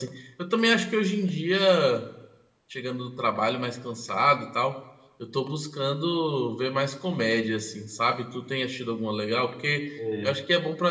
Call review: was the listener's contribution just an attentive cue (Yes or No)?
Yes